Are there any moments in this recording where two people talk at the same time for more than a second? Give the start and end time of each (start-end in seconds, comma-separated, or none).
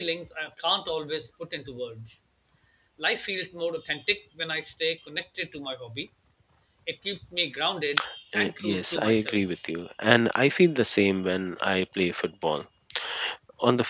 8.4-9.6